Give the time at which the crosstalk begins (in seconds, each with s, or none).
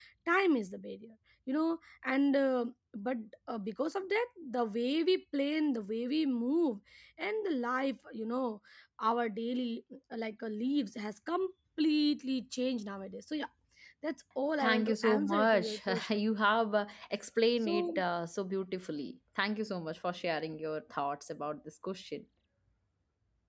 14.6 s